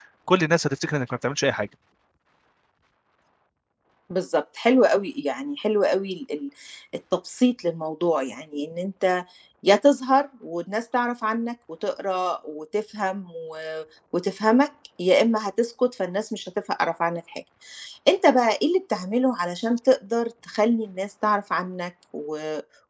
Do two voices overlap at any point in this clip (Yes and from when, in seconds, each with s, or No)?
No